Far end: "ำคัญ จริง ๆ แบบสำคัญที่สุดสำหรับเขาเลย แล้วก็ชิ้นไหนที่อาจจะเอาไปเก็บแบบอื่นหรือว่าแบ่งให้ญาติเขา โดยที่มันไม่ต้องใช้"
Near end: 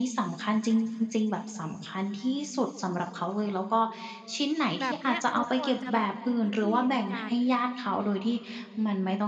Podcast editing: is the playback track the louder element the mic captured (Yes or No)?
Yes